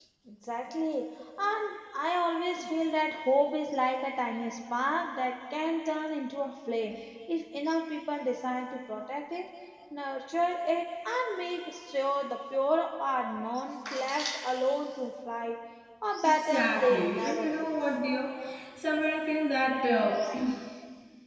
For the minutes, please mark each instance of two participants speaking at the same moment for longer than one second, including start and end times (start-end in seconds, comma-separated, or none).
16.2-17.7